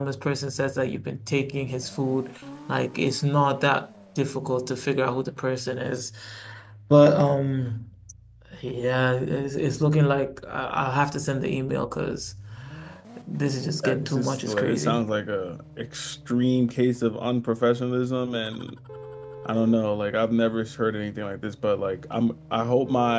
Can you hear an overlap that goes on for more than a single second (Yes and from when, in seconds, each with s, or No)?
Yes, from 13.8 s